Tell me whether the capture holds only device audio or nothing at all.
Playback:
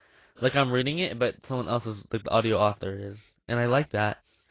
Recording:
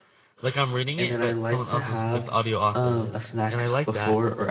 No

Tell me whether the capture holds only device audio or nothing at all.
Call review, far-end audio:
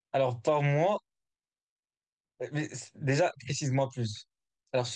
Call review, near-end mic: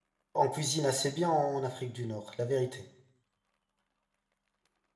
No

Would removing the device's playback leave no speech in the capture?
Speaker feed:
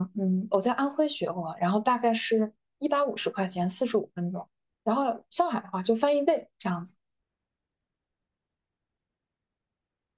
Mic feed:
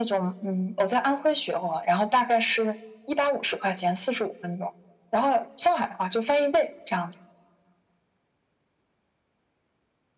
Yes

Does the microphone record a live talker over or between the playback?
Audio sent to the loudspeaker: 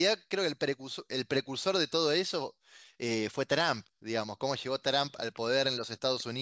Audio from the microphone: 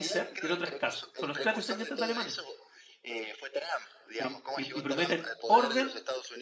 Yes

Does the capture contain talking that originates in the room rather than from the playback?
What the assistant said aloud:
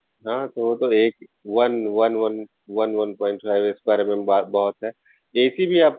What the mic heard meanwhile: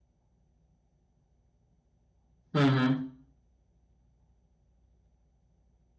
Yes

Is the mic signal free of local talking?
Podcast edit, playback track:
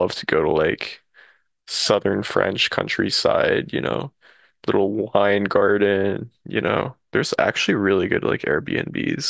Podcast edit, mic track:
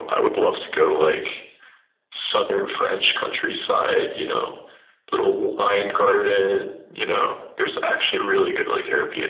Yes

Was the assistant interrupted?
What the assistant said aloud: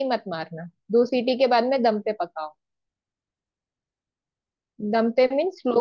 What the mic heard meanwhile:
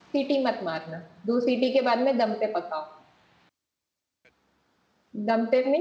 No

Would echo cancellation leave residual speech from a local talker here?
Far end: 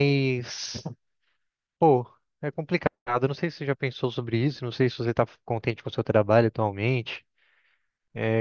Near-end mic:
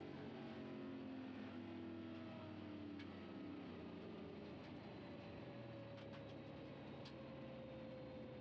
No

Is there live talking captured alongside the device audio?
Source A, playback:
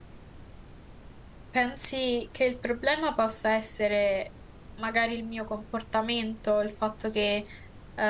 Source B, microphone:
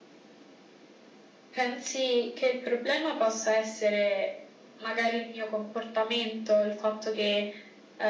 No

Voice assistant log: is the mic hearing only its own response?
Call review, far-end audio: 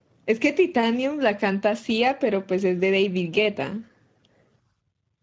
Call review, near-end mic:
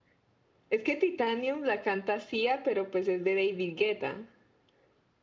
Yes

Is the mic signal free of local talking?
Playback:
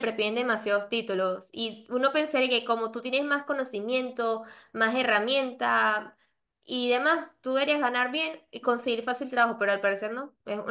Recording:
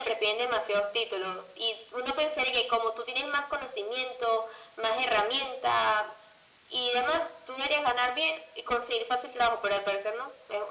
Yes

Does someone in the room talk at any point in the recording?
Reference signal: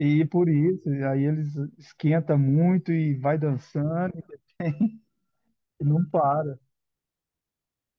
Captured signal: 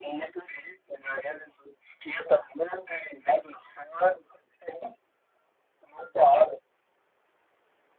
No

